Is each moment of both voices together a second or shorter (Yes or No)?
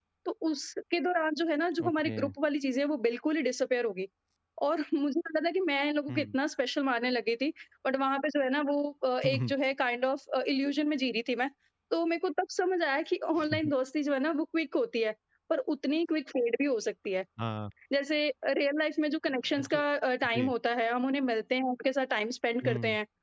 Yes